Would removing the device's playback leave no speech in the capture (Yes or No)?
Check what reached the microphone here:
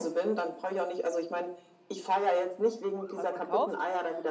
No